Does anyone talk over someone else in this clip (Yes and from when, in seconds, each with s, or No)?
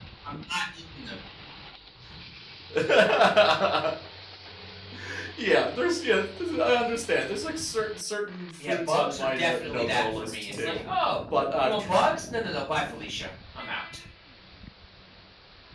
Yes, from 8.6 s